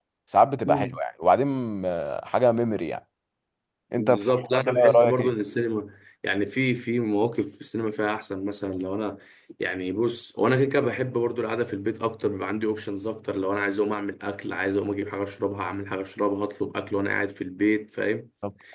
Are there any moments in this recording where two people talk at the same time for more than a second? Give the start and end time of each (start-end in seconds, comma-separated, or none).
4.0-5.3